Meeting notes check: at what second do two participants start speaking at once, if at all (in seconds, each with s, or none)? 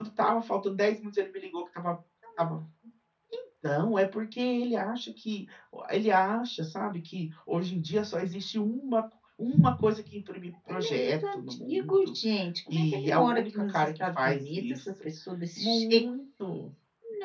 10.7 s